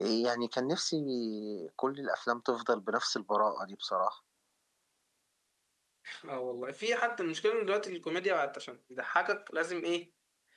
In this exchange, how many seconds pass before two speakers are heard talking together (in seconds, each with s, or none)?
none